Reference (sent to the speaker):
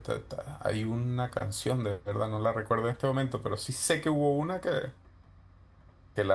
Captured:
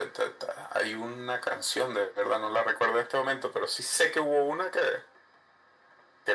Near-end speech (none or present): none